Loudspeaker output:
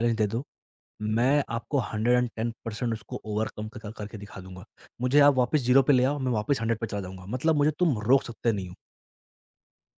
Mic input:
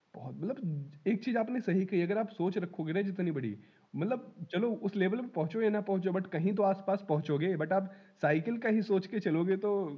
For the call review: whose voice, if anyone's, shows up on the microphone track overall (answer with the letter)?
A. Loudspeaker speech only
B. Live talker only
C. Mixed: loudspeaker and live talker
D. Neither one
B